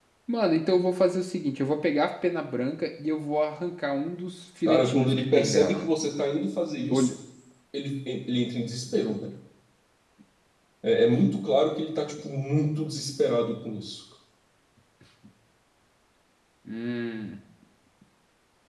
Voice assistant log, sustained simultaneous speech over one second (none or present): present